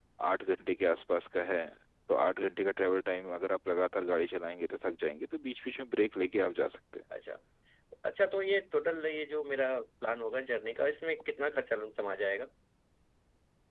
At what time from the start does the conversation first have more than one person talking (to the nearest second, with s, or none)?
none